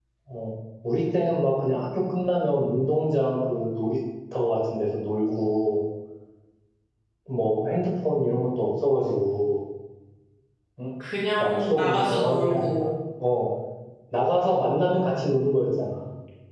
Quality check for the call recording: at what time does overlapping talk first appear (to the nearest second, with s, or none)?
11 s